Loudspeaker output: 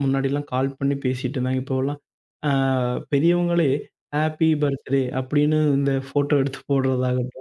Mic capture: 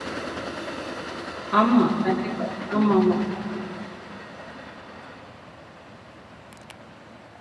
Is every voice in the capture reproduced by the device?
No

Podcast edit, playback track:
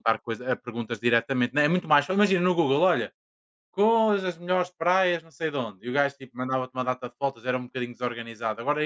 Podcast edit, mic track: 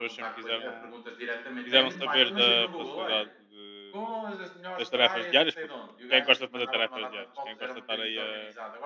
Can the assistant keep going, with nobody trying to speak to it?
No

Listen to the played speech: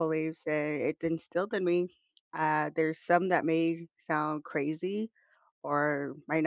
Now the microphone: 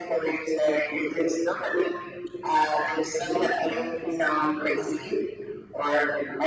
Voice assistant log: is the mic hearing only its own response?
No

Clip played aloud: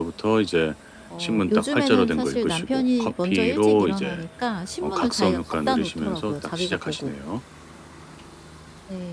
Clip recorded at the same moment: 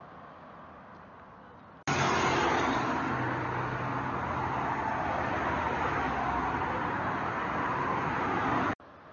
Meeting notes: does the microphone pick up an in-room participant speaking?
No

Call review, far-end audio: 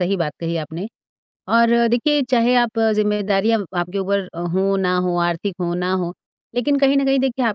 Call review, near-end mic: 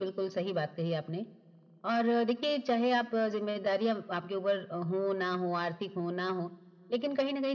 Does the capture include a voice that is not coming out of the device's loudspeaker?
No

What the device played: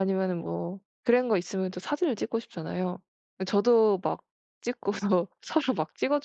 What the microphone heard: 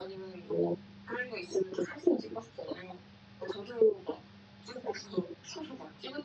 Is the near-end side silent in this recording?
Yes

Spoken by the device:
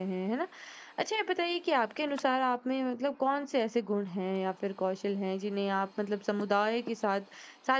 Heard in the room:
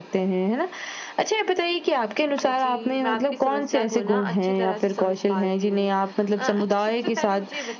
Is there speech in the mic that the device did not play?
Yes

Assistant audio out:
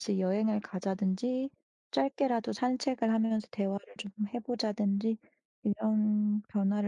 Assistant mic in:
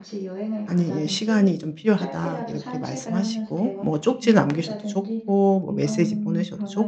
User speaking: Yes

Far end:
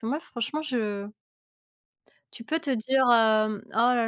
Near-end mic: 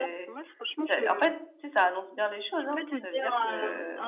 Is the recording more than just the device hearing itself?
Yes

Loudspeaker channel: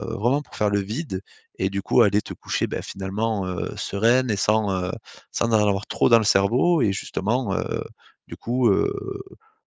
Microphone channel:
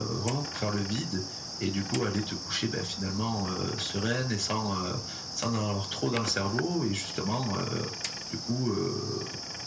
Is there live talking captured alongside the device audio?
No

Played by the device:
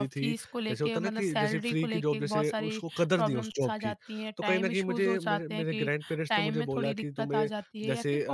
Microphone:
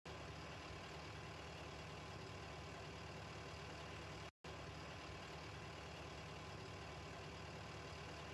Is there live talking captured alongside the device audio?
No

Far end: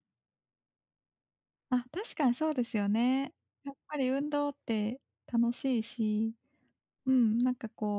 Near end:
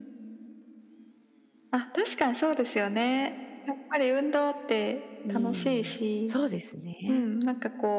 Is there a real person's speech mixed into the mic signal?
Yes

